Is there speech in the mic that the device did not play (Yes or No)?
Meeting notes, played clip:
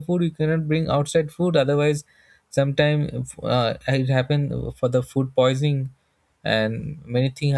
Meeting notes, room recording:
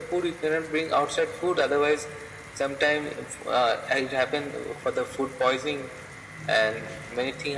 No